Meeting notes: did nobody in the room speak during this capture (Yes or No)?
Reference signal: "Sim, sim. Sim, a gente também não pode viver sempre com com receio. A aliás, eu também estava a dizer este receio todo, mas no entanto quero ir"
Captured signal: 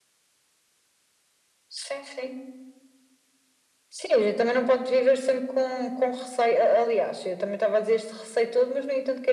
Yes